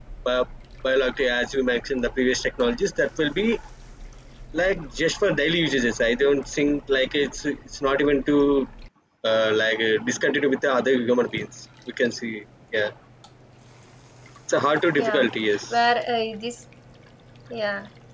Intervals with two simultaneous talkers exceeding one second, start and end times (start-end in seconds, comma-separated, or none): none